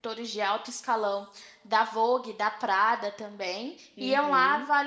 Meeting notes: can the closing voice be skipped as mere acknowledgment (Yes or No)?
Yes